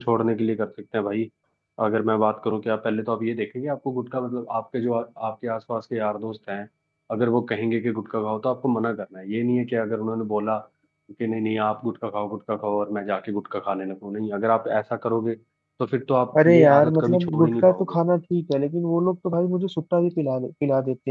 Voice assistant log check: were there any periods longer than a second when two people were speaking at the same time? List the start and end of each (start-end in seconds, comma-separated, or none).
16.4-18.0